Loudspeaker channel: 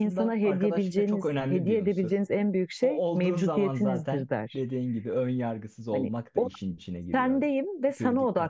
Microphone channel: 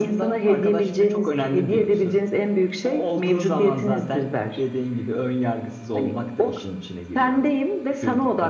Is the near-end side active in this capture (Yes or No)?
No